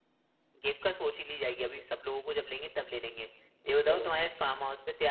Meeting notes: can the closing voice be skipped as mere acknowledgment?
Yes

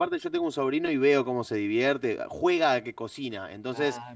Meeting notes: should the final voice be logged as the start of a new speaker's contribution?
No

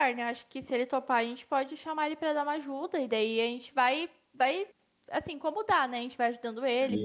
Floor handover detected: Yes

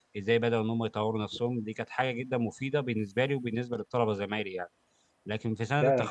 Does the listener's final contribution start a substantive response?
Yes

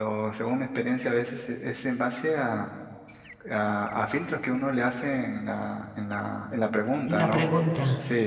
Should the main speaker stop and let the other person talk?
No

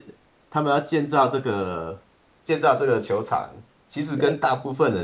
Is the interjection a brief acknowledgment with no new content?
Yes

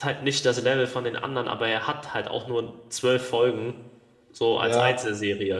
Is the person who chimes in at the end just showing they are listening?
No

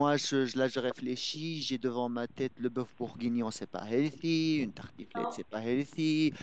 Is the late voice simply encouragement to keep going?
Yes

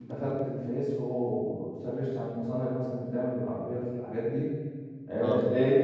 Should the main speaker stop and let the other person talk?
No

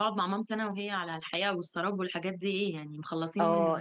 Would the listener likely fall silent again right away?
No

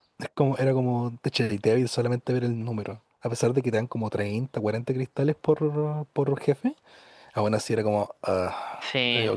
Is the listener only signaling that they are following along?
No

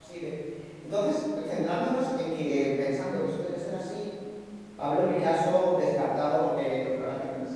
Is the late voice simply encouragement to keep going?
Yes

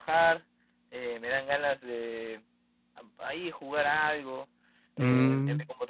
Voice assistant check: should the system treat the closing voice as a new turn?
No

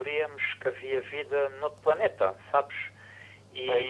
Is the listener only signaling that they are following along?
Yes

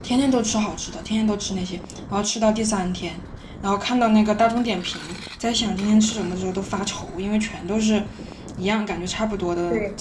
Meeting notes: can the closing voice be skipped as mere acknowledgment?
No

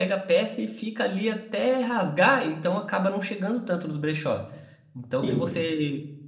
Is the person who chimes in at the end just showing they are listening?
Yes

